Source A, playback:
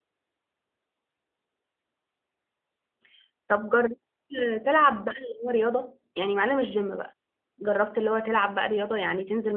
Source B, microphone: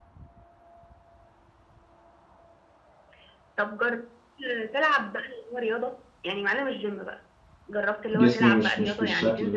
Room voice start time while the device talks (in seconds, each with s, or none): 8.1 s